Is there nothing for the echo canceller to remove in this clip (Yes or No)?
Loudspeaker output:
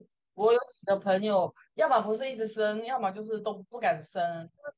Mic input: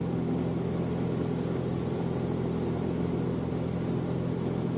Yes